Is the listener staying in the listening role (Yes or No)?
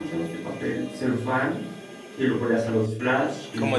Yes